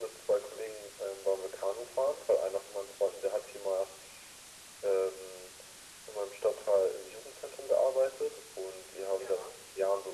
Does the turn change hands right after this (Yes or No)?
No